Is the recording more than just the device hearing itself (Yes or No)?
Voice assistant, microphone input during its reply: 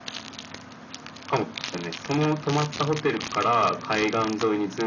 No